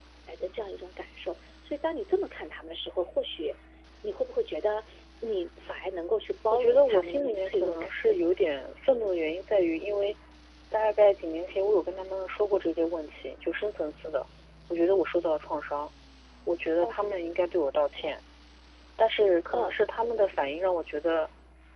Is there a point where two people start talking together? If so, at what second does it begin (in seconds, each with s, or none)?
6.5 s